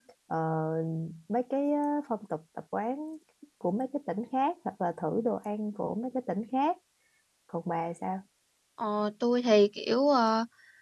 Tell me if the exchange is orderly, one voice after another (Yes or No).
Yes